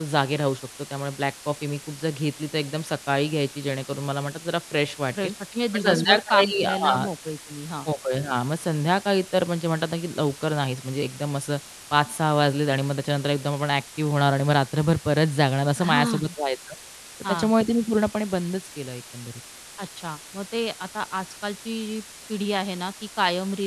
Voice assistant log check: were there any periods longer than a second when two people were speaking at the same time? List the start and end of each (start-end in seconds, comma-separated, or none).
5.7-7.0